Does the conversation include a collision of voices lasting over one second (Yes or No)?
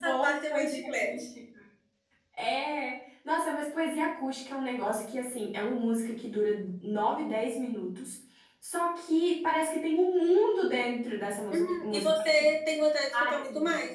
Yes